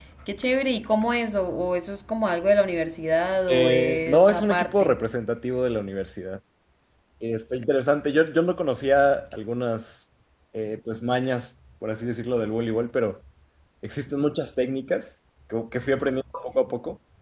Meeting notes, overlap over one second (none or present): present